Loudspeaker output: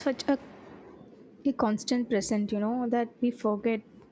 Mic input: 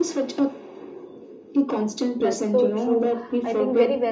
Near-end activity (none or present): present